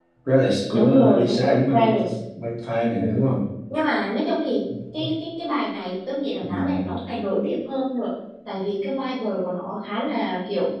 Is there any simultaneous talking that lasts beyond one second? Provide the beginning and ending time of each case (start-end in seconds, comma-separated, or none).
0.7-1.9